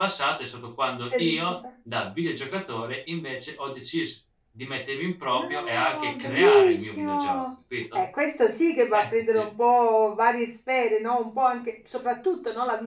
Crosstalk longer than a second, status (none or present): present